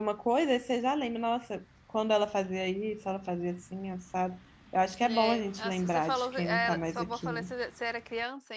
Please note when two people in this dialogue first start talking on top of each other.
5.0 s

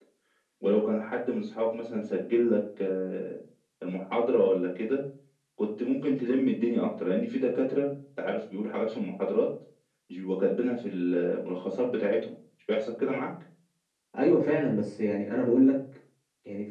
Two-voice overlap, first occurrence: none

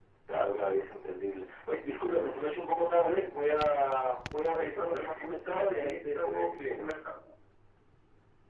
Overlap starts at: 4.4 s

